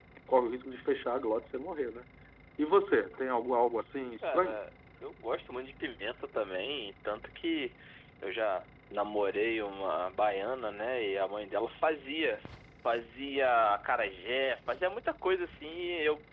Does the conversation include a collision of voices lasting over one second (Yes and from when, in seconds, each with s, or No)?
No